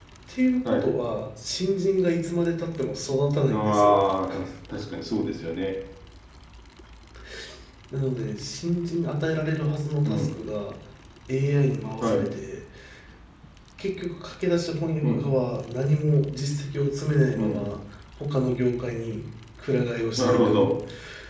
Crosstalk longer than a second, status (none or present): none